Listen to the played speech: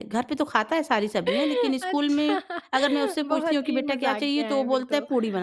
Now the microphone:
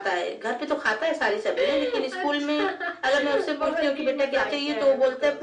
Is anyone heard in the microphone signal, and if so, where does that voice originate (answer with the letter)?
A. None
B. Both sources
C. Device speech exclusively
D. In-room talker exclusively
C